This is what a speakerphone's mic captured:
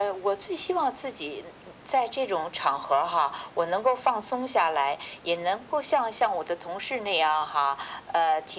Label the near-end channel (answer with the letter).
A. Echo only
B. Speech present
A